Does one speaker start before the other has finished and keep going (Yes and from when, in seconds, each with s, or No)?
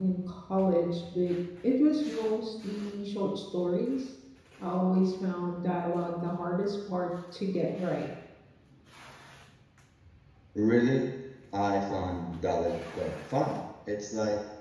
No